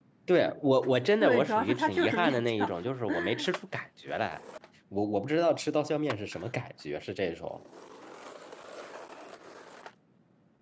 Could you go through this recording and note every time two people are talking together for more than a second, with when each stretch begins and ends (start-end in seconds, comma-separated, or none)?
1.2-2.7